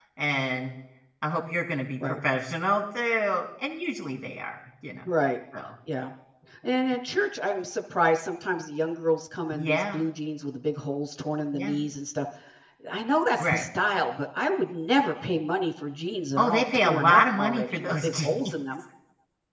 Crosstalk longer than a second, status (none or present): present